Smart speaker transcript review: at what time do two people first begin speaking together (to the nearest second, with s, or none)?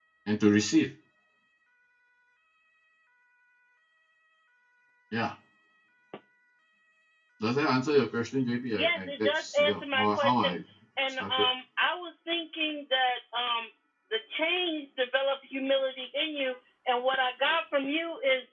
9 s